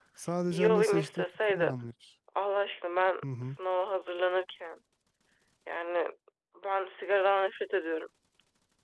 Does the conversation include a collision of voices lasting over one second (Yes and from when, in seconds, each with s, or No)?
Yes, from 0.5 s